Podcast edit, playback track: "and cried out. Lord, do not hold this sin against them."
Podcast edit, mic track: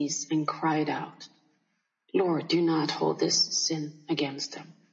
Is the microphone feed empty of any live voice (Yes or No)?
Yes